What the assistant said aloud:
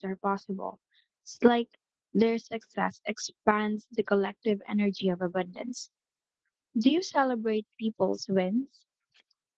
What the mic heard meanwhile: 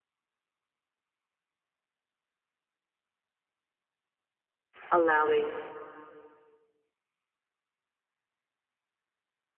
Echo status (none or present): none